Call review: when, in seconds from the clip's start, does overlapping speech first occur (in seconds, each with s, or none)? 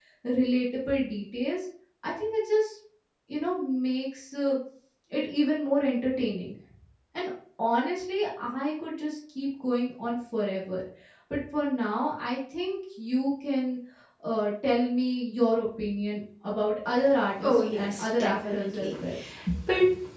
17.4 s